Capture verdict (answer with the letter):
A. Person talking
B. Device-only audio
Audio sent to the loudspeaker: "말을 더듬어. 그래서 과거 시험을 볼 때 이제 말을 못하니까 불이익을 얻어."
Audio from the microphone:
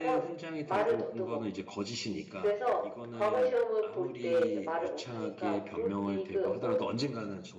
A